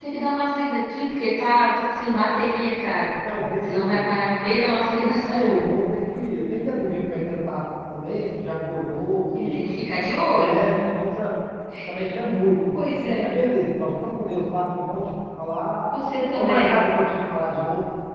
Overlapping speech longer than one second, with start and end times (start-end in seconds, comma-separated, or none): none